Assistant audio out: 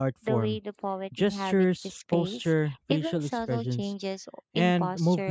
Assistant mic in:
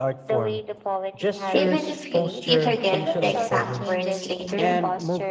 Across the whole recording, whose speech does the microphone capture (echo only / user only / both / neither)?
both